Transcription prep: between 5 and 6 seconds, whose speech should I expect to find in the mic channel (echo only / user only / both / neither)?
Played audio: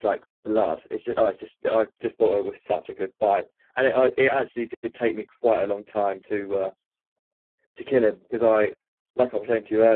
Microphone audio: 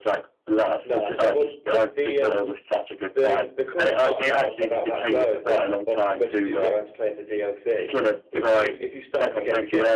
both